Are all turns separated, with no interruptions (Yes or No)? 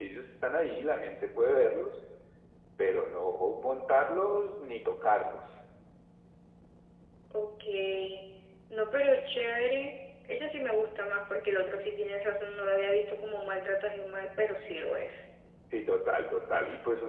Yes